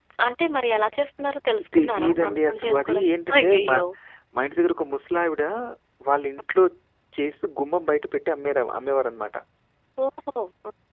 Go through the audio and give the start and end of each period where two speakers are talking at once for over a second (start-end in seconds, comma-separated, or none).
1.8-3.8